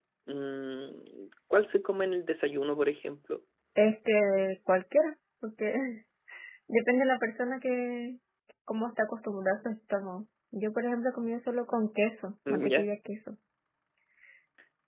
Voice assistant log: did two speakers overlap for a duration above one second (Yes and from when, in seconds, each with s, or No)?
No